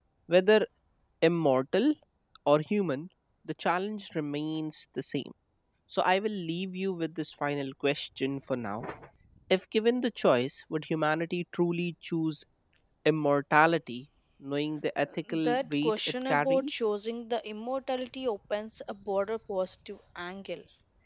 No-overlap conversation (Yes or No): No